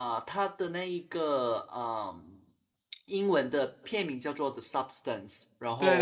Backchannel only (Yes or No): No